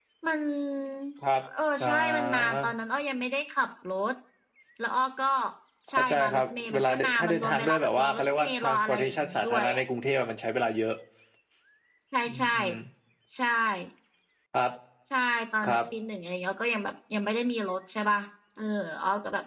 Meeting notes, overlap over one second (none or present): present